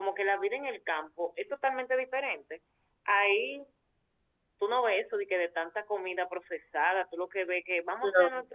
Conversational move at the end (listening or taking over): listening